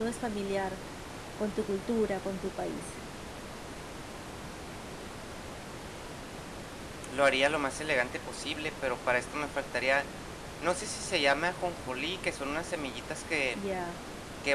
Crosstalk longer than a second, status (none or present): none